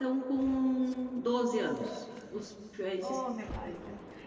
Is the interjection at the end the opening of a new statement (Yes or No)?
Yes